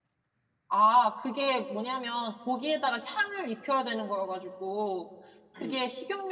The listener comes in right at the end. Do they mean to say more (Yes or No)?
No